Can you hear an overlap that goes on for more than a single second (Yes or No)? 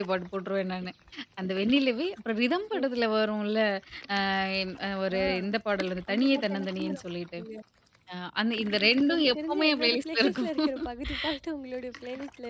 Yes